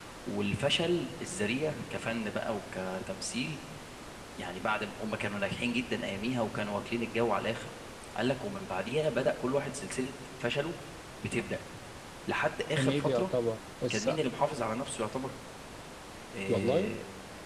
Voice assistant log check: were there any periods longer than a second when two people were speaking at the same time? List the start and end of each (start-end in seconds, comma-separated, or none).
none